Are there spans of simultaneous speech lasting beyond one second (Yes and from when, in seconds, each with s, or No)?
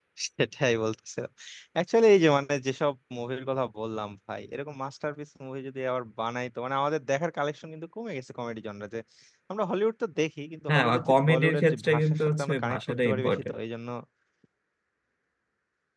Yes, from 10.7 s